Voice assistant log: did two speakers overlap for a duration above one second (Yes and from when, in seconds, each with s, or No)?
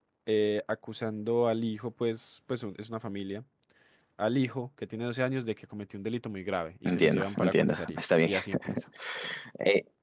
Yes, from 6.8 s